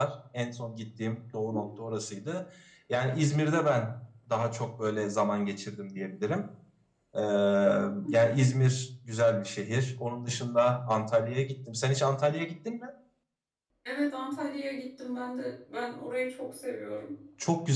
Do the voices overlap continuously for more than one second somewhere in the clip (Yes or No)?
No